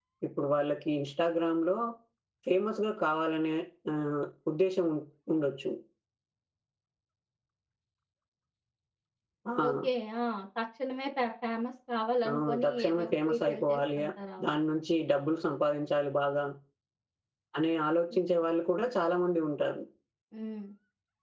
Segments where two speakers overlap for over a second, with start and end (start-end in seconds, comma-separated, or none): 12.3-14.0